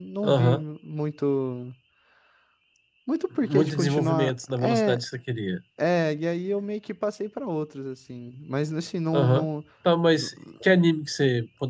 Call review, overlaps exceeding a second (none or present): present